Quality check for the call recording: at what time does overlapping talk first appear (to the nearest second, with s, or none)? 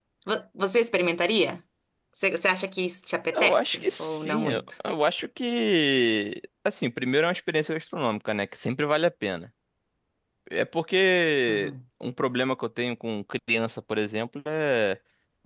3 s